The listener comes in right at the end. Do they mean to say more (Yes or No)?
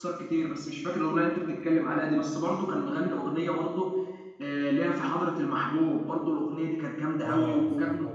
Yes